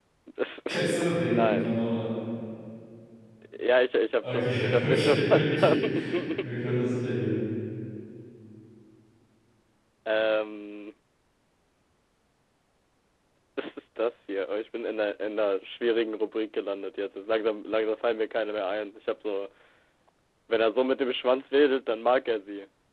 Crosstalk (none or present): present